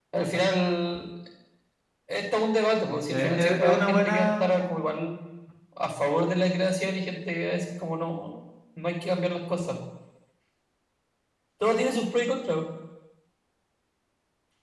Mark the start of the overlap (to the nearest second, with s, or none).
3 s